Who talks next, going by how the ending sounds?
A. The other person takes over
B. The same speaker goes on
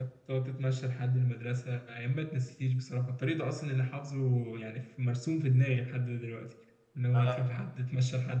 B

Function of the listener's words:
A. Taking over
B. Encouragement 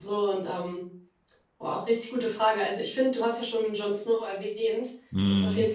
B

